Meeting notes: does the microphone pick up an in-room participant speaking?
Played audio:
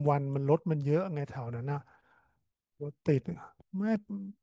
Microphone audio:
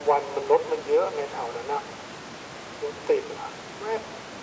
No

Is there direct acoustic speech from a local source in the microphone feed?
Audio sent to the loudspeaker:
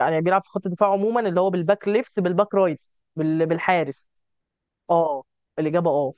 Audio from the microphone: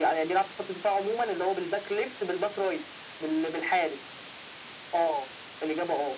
No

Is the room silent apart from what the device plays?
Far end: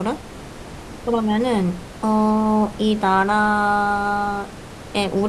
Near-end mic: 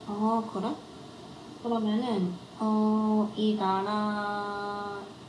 Yes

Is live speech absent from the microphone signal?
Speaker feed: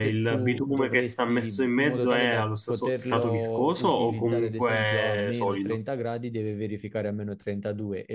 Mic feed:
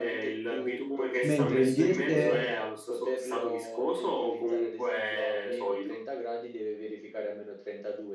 No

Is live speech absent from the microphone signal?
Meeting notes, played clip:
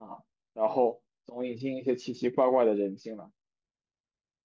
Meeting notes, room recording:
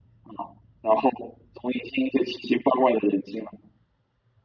Yes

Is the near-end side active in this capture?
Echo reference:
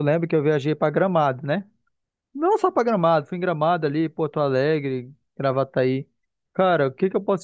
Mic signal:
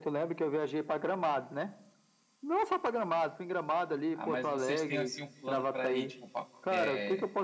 Yes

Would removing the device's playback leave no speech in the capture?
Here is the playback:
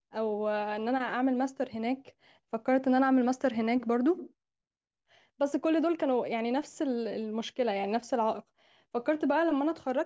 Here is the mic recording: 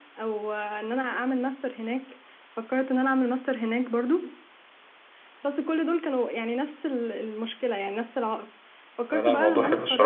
No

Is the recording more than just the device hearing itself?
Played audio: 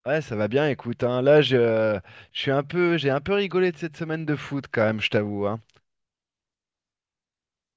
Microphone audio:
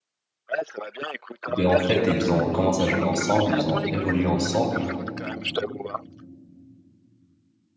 Yes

